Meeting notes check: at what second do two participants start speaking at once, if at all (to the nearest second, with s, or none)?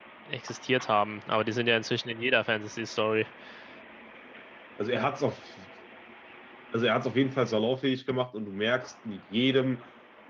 none